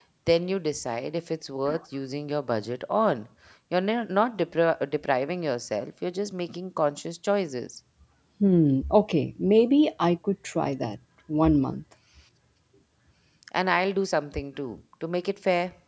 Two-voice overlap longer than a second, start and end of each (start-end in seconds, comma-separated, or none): none